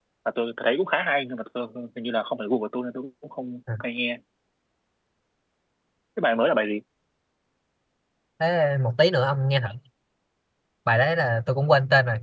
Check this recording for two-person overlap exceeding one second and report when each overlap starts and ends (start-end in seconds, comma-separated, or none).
none